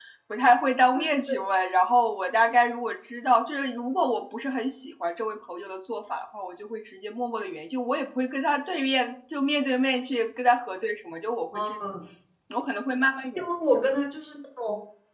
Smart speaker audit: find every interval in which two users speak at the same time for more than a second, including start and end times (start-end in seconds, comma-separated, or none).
none